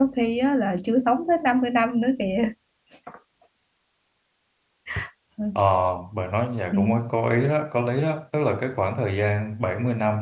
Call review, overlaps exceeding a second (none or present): none